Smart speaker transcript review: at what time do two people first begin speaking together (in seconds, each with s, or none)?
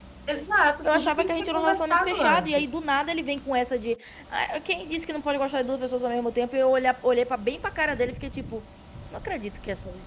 0.8 s